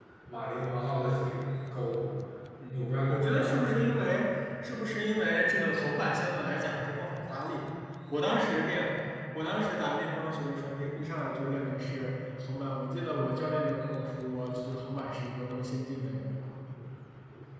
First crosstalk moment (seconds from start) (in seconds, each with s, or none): 2.6 s